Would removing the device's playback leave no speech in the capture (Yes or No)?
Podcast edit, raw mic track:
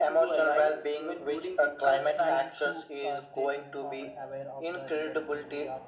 No